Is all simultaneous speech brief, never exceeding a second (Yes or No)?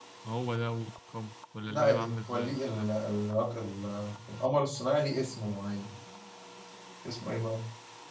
No